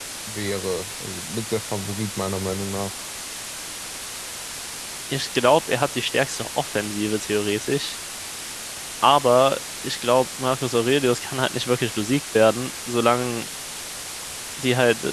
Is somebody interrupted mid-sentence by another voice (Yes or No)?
No